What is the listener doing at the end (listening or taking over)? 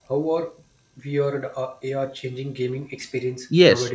taking over